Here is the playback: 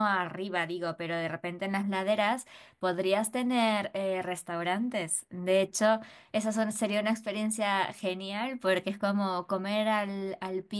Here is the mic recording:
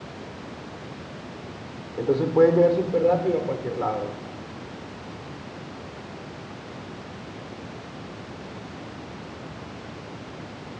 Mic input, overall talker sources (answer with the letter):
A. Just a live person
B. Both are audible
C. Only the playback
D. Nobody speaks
A